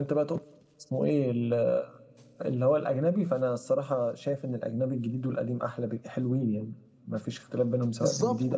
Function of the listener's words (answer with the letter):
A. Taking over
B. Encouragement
A